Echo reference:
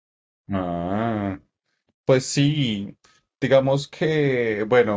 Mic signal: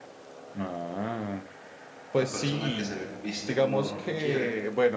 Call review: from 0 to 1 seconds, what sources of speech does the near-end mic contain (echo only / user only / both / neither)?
echo only